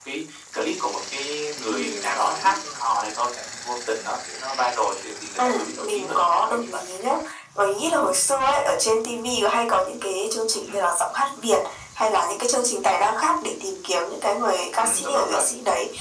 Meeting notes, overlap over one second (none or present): present